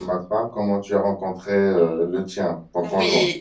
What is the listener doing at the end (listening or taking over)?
taking over